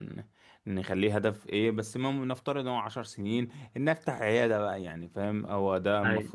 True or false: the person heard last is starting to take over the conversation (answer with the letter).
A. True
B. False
B